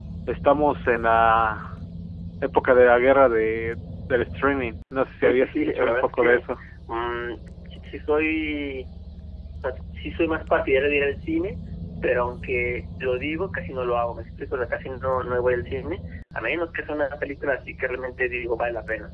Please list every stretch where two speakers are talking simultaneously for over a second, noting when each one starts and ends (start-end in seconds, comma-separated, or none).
5.2-6.4